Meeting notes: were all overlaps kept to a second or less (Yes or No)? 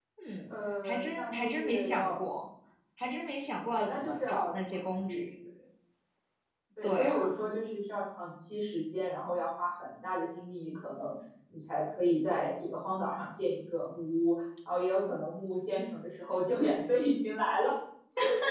No